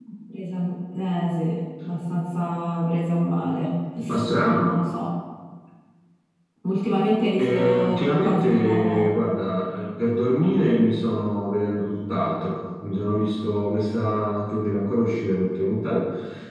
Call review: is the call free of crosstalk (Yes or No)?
No